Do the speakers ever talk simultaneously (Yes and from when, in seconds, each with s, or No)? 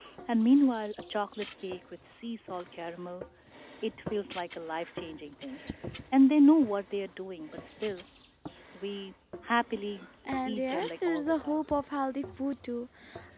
Yes, from 10.4 s